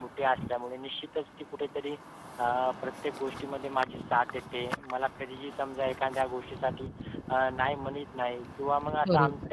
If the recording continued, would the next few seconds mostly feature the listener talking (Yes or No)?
No